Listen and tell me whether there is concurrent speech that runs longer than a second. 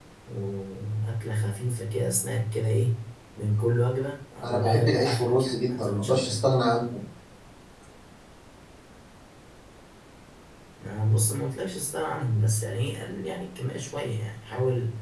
Yes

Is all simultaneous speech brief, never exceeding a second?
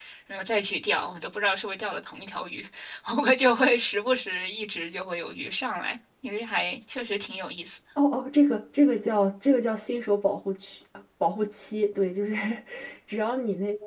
Yes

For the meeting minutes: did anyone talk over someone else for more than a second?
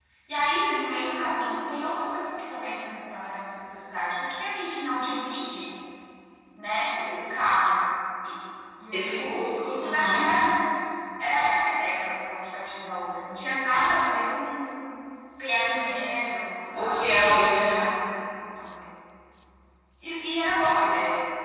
Yes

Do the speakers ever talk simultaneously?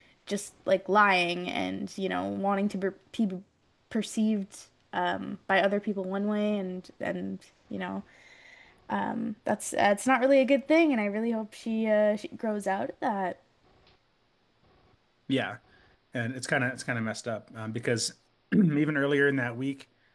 No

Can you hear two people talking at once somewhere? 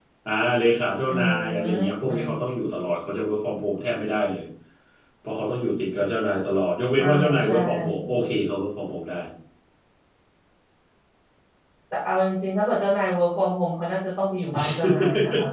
Yes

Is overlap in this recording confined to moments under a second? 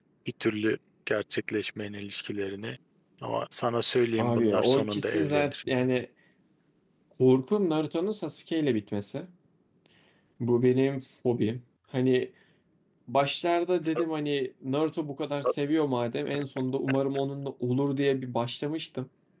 No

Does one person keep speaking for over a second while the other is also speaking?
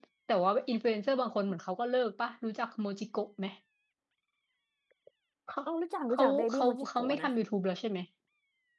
Yes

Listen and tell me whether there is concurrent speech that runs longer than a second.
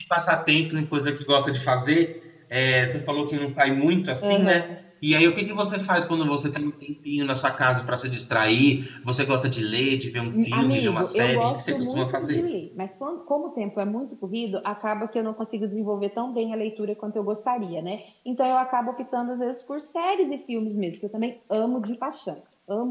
Yes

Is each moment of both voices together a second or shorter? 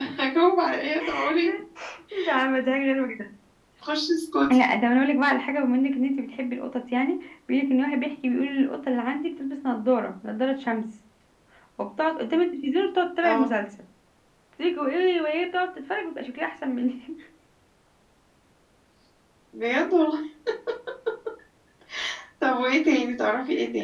Yes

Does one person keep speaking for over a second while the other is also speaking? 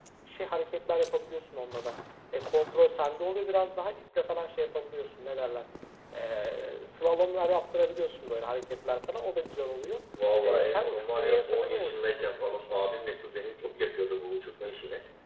Yes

